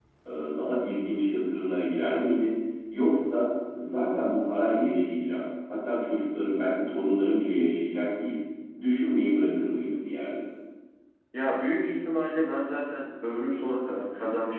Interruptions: none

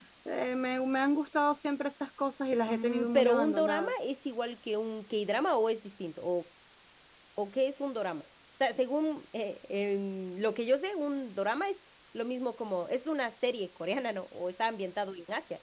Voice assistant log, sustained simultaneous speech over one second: present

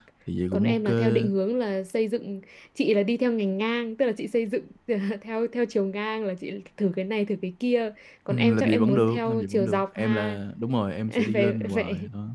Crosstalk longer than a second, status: present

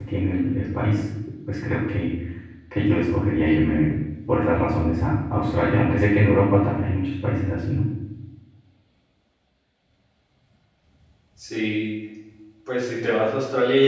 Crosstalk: none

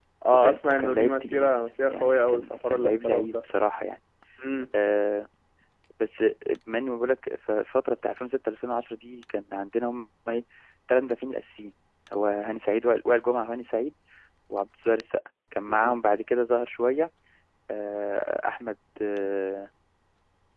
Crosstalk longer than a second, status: present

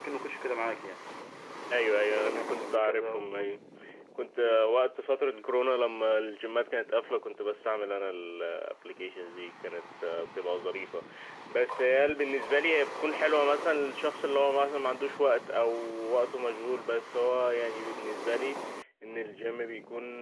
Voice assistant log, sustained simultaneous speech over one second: present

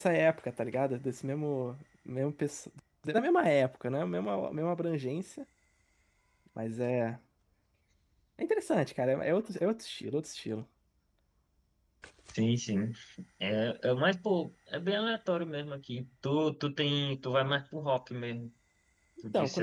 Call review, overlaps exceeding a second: none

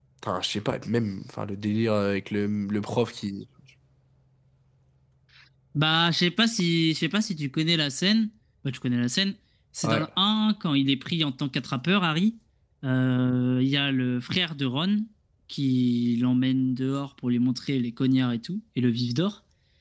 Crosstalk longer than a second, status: none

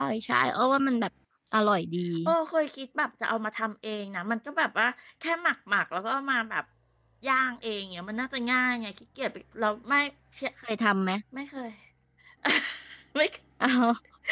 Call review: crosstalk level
none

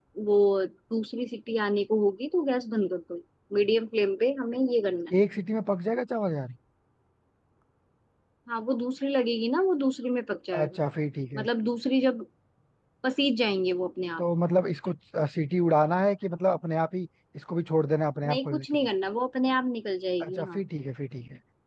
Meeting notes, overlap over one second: none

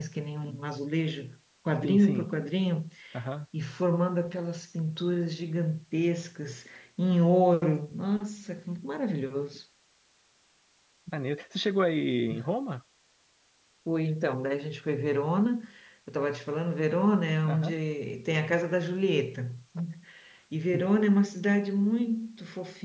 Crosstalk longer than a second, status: none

